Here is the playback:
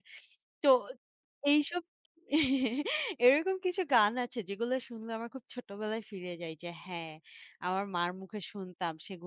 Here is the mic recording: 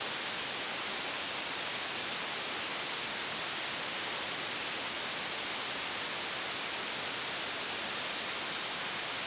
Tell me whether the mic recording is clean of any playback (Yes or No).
Yes